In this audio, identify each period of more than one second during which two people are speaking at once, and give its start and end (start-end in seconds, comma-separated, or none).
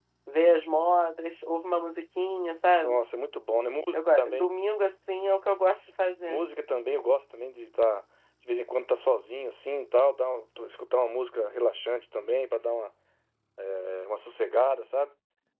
none